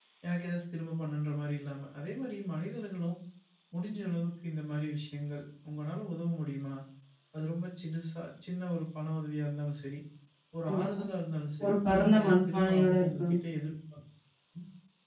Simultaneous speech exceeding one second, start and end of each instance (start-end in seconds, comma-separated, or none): 11.6-13.4